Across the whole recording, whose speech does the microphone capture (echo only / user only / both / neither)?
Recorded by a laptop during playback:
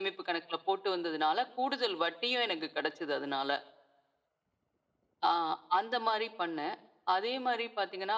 echo only